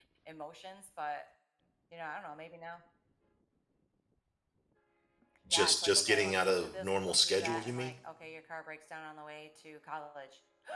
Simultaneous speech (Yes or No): Yes